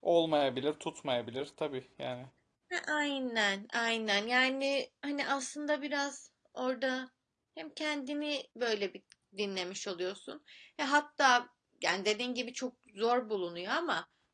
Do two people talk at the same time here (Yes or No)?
No